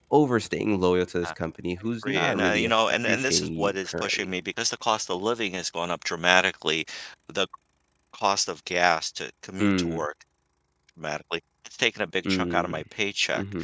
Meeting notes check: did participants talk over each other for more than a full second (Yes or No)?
Yes